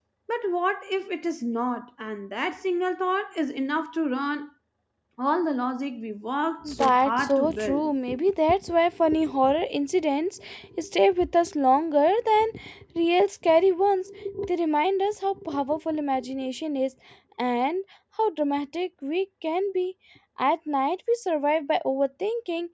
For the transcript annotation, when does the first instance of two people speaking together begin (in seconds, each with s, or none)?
6.6 s